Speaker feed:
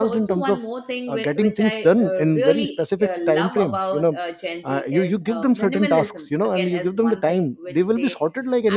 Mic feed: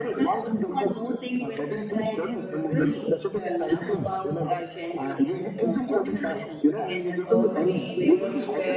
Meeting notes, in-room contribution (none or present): present